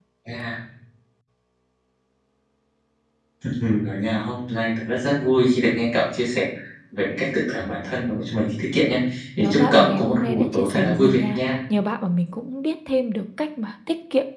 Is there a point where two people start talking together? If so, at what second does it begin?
9.4 s

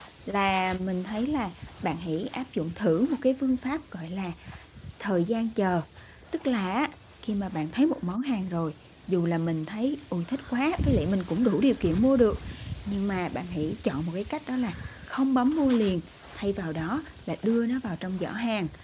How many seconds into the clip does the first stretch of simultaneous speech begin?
none

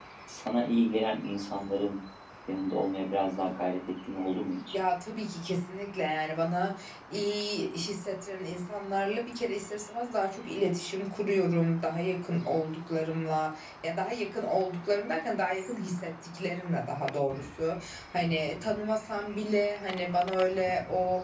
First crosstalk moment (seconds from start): none

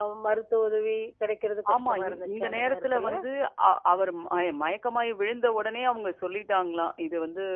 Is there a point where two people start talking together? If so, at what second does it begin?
1.7 s

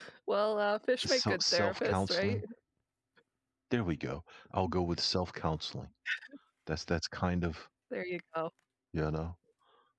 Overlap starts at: 1.0 s

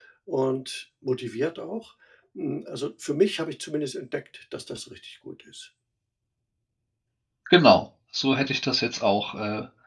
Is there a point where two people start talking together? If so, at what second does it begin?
none

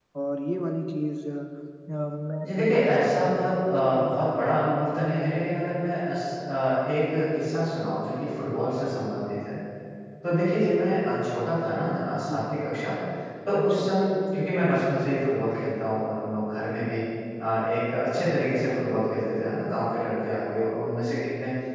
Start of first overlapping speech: 2.4 s

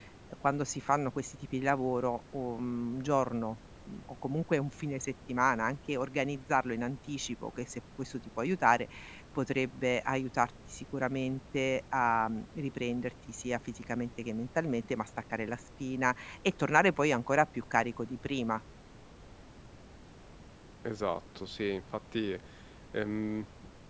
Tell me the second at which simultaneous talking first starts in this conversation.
none

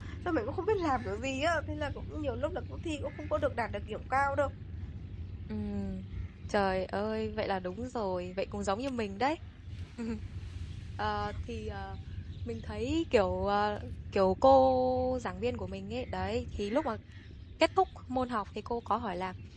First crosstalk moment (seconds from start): none

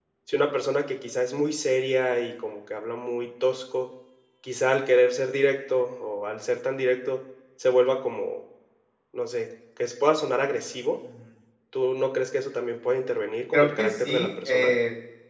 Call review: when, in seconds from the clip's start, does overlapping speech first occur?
13.5 s

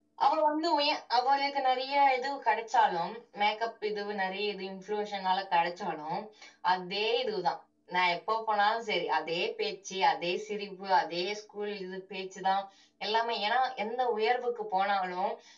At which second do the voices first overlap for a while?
none

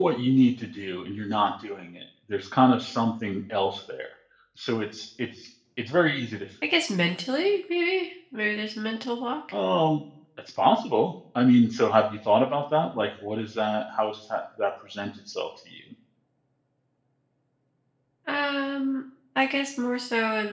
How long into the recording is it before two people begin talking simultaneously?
none

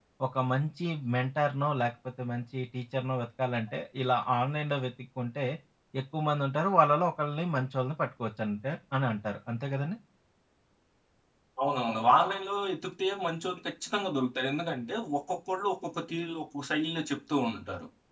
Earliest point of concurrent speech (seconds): none

